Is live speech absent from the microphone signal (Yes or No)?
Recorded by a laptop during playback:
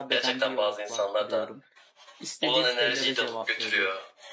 No